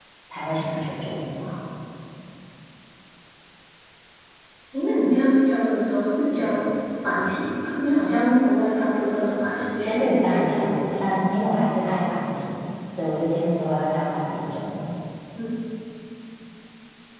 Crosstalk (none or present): present